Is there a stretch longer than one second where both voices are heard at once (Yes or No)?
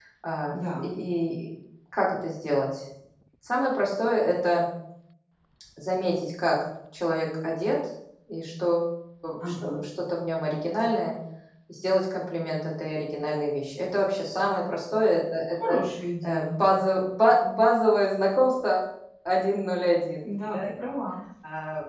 No